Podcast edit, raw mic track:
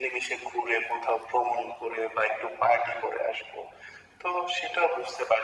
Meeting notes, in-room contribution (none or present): none